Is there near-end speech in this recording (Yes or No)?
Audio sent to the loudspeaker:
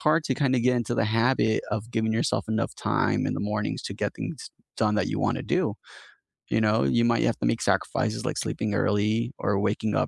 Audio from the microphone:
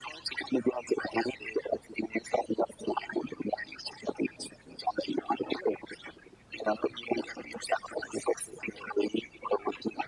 No